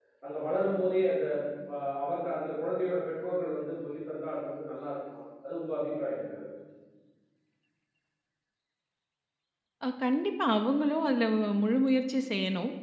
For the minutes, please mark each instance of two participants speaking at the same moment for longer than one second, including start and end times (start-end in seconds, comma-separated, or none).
none